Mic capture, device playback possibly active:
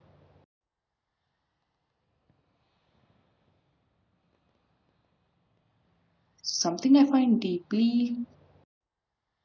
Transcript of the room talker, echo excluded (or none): Something I find deeply